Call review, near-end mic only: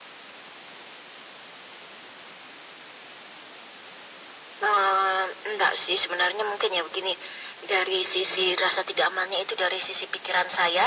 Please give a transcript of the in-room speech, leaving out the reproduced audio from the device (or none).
none